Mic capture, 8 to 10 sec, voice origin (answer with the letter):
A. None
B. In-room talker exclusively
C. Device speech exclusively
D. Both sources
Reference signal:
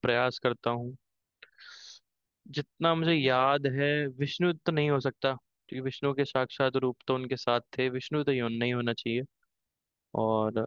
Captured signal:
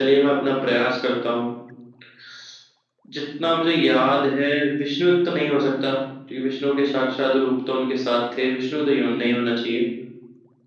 C